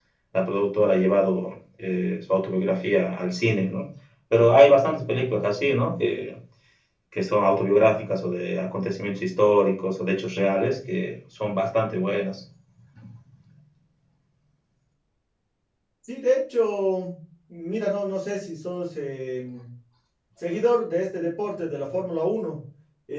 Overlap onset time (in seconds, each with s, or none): none